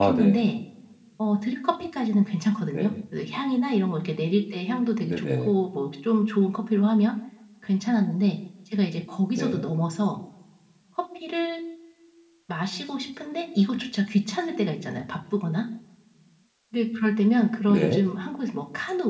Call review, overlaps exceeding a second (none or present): none